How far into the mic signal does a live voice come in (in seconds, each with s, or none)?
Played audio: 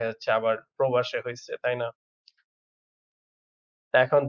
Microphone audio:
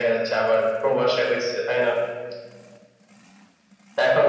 none